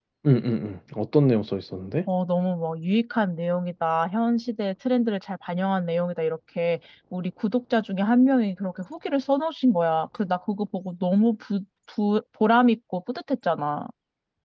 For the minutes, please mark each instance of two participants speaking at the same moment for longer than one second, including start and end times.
none

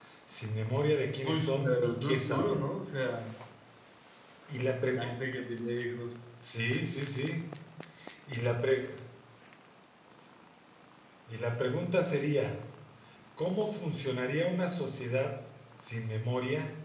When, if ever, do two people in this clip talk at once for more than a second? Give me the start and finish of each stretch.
1.2-2.6

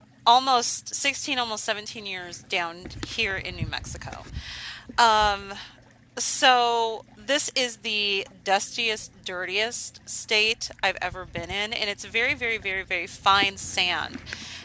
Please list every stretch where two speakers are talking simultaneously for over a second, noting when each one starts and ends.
none

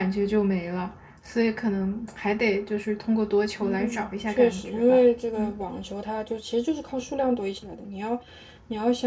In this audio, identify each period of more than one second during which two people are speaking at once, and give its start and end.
3.6-5.0

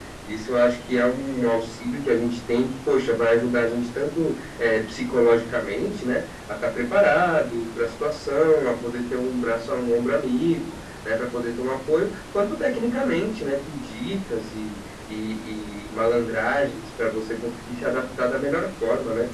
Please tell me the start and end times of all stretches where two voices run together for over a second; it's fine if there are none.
none

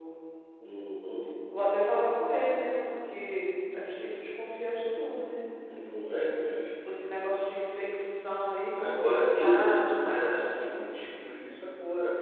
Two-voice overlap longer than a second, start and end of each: 8.8-10.5

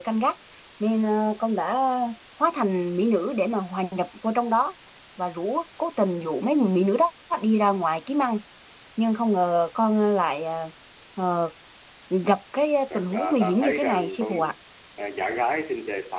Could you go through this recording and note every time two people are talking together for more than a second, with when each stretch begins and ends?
12.9-14.4

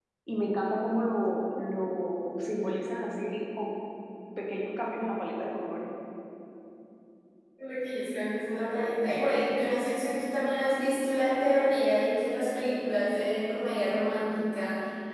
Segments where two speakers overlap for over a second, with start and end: none

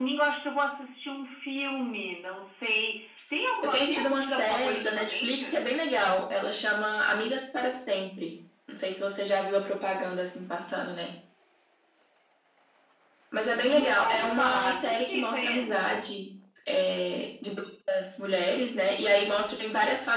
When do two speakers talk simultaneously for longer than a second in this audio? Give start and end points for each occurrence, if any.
3.6-5.6, 13.7-15.8

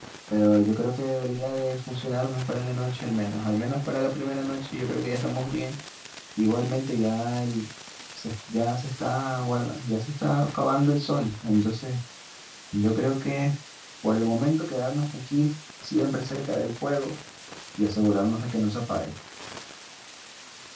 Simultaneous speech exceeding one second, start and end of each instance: none

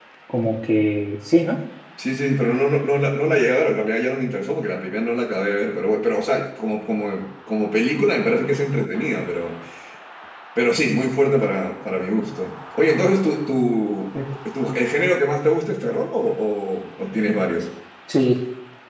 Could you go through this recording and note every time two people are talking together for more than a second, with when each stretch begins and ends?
none

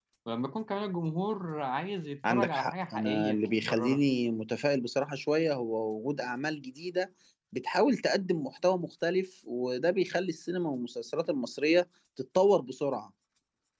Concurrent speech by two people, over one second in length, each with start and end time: 2.3-4.0

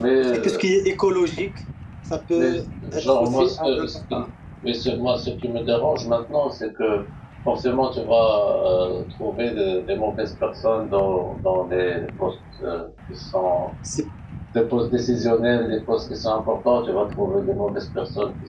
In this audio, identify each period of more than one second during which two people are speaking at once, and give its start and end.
3.0-4.2

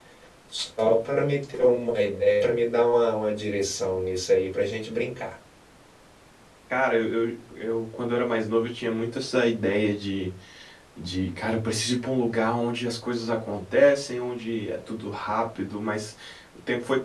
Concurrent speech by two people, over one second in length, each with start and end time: none

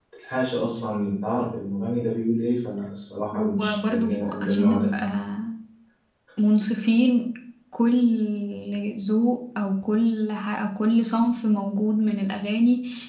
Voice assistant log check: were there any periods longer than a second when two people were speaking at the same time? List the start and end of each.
3.3-4.9

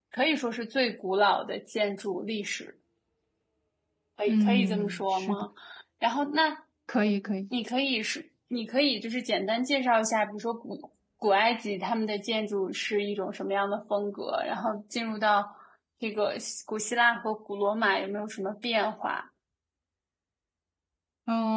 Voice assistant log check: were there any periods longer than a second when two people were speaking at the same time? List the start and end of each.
4.3-5.5

